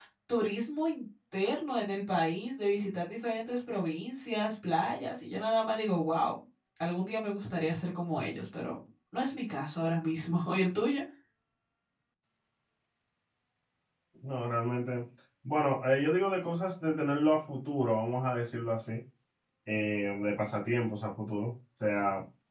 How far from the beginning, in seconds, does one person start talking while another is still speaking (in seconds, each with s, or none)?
none